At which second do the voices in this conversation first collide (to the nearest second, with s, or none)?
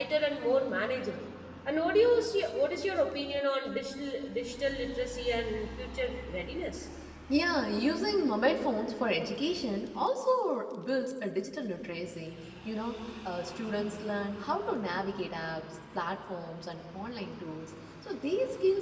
none